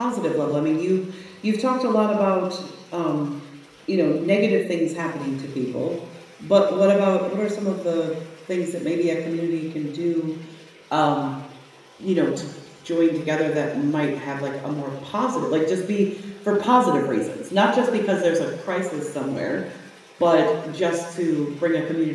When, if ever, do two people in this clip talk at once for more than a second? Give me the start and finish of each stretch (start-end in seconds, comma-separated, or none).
none